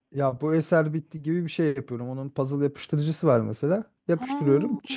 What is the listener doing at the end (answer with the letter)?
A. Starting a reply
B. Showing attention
B